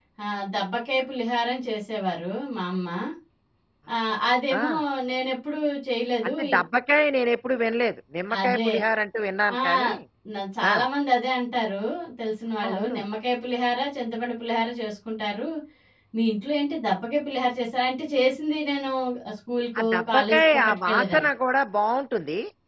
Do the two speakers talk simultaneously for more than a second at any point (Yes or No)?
Yes